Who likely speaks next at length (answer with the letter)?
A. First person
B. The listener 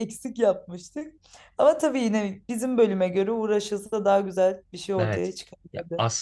B